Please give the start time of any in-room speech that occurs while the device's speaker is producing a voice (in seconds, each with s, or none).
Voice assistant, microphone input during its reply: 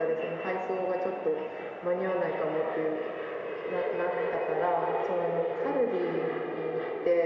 none